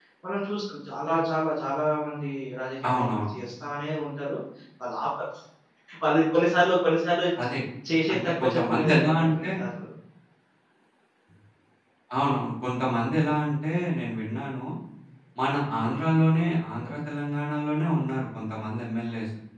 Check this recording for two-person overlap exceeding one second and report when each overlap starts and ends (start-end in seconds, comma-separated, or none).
8.1-9.5